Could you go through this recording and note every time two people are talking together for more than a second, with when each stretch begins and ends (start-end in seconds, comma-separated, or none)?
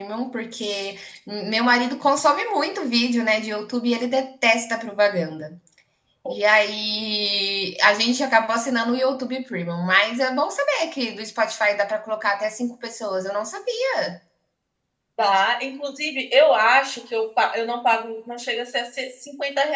none